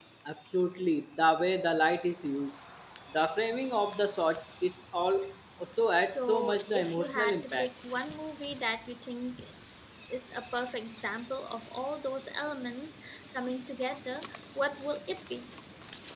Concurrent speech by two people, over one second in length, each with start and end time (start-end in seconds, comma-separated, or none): 6.2-7.7